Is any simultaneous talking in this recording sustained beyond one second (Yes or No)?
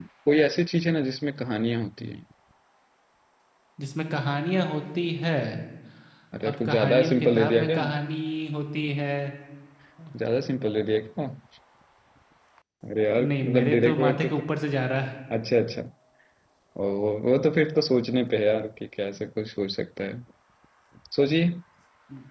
Yes